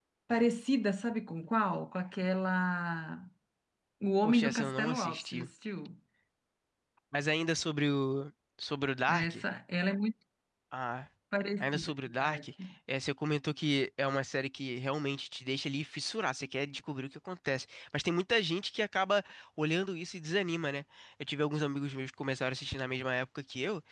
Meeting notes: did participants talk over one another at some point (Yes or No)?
Yes